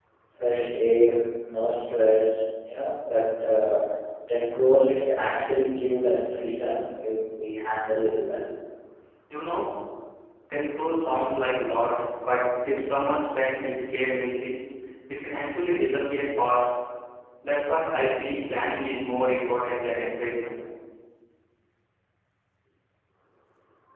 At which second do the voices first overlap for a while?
none

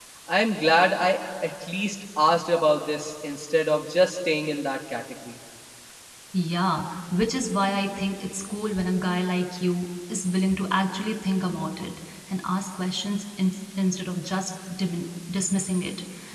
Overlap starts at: none

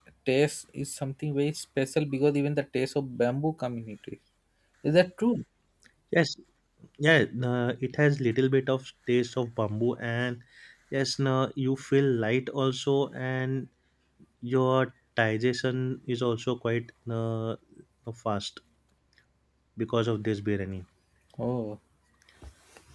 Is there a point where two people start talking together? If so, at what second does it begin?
none

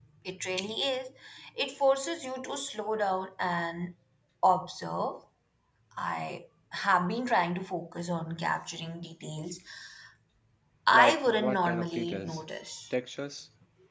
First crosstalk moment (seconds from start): 11 s

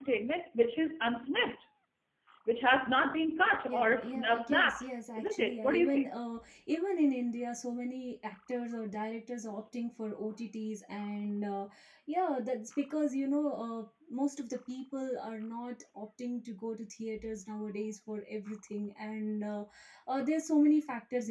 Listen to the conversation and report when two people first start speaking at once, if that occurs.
4 s

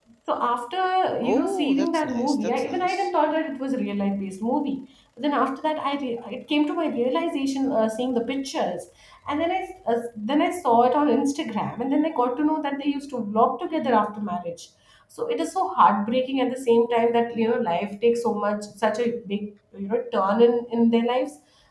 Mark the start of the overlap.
1 s

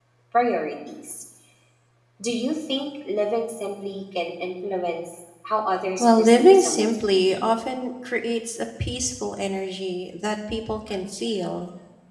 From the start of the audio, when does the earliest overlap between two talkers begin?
6 s

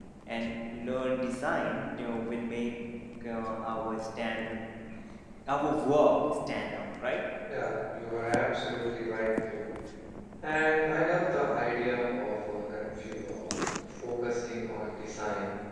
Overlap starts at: none

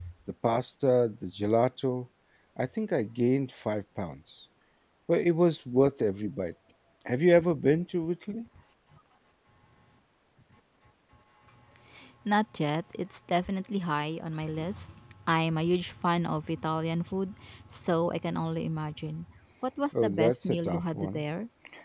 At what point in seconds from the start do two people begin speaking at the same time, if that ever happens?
20 s

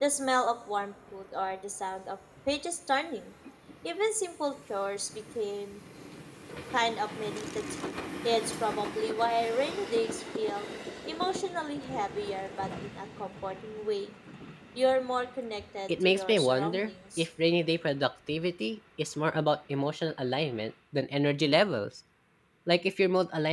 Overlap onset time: 16 s

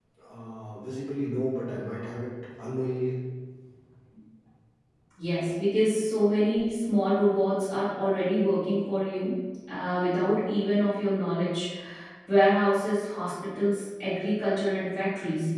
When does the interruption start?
none

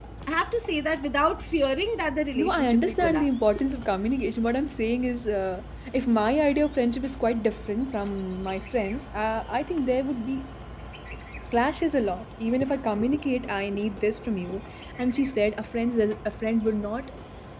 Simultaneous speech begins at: 2 s

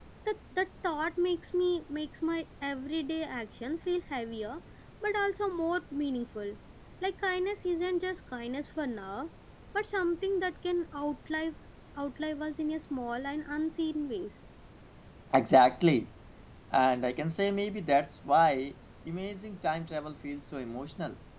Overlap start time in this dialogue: none

